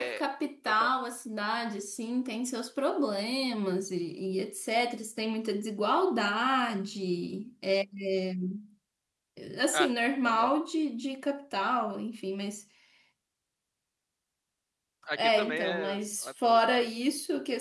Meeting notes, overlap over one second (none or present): present